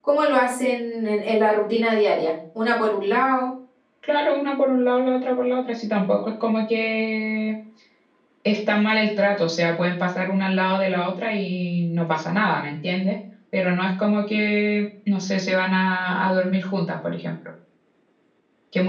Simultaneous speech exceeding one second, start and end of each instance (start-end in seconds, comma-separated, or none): none